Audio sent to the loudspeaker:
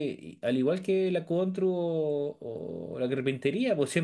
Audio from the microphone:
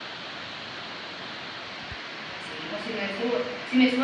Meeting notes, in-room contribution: present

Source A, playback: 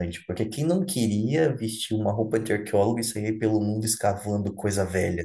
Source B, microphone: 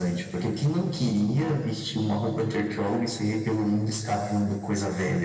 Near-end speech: none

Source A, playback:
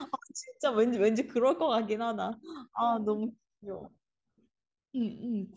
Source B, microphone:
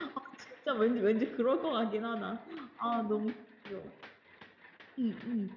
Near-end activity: none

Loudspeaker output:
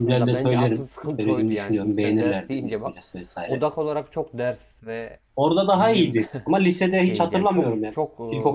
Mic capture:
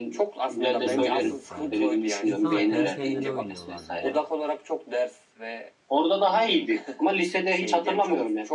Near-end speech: present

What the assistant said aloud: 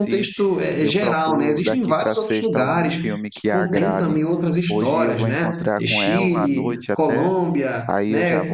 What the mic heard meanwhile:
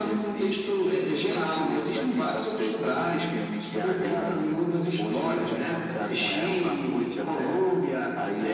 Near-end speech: none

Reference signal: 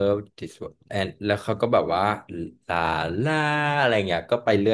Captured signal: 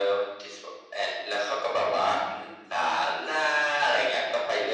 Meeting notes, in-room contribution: none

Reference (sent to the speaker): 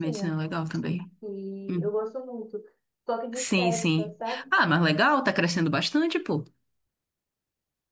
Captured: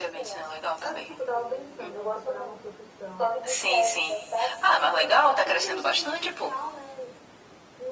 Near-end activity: present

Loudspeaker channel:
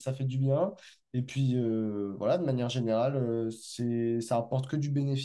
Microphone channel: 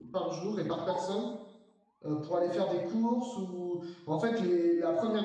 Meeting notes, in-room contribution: present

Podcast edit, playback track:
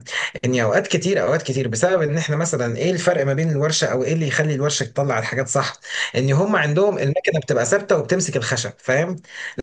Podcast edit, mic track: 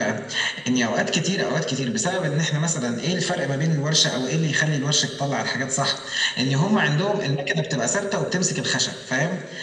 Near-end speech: none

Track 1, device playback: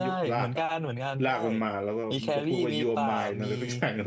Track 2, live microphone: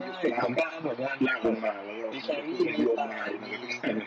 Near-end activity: none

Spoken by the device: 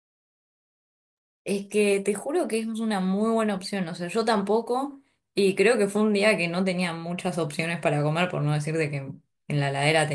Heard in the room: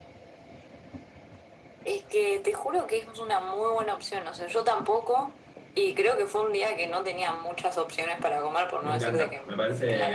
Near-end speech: present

